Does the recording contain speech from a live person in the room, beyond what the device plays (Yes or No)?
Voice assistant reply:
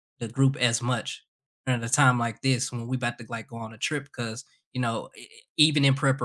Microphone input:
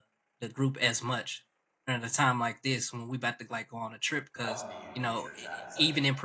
Yes